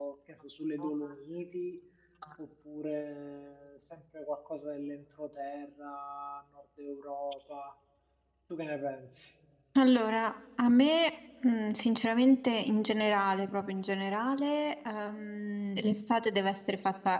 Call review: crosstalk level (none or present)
none